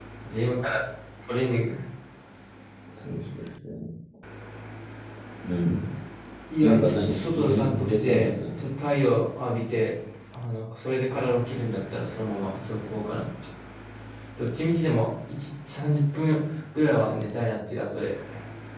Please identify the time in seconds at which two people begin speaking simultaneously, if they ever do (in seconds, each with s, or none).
6.6 s